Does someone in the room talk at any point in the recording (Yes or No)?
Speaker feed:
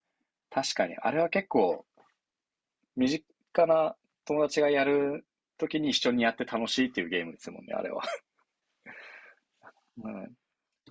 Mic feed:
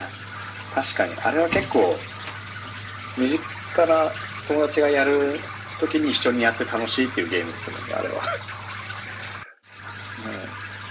No